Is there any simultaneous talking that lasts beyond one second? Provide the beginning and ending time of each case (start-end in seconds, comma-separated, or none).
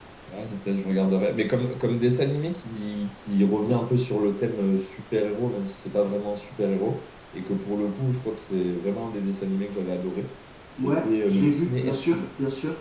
10.8-12.2